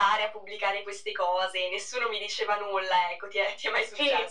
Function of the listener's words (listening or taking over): taking over